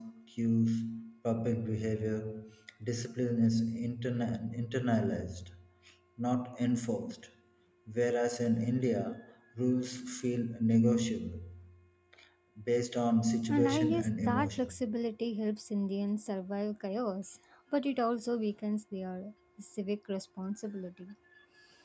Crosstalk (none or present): present